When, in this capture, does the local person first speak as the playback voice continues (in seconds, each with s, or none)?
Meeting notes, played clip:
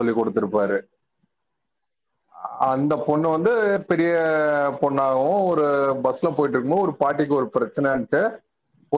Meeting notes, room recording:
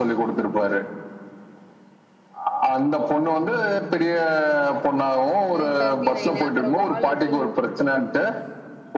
5.6 s